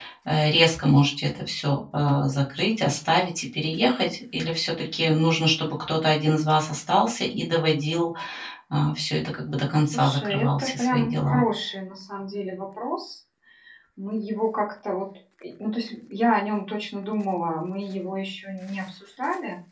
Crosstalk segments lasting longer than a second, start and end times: 9.9-11.4

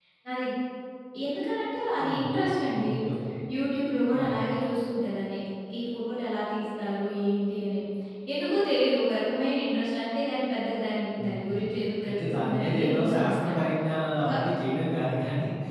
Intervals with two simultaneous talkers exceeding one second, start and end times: 12.1-13.5

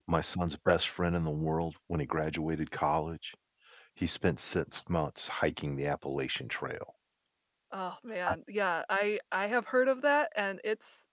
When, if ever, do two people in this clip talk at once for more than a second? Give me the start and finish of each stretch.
none

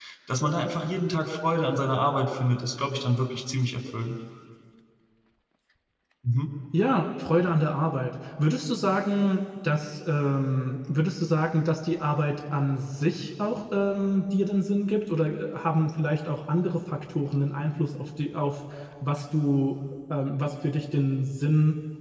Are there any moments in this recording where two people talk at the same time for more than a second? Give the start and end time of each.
none

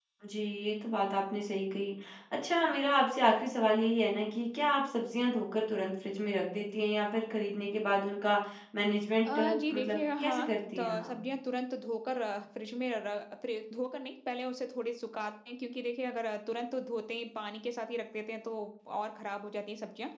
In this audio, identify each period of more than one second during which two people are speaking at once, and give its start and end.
9.2-11.1

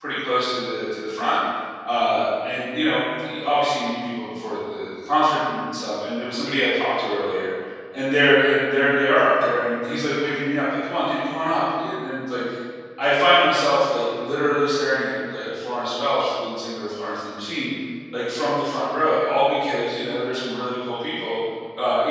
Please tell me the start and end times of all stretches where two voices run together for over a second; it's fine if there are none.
none

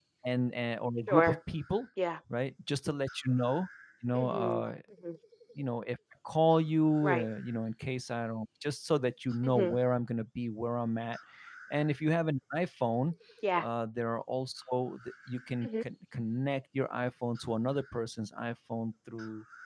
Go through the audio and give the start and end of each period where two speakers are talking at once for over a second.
none

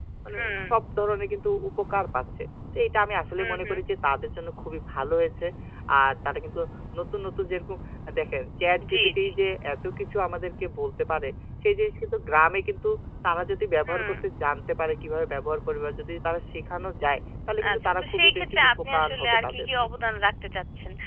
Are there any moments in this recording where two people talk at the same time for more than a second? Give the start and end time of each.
17.7-19.7

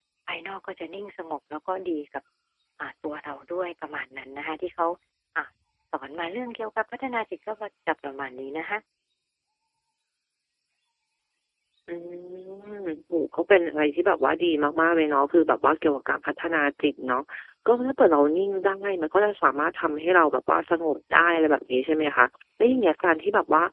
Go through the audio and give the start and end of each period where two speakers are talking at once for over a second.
none

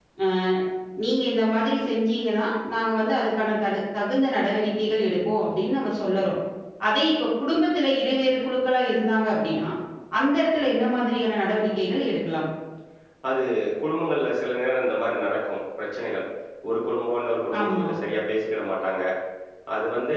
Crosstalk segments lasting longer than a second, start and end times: none

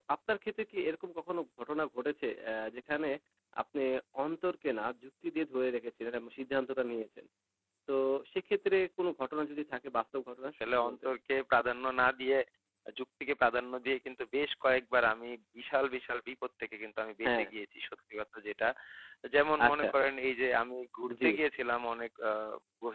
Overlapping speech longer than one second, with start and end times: none

